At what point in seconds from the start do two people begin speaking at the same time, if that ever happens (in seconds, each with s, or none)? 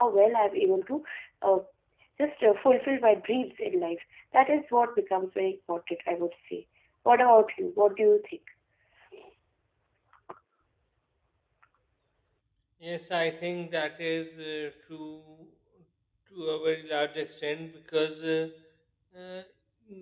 none